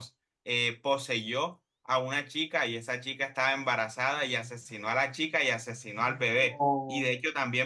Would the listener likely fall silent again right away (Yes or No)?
Yes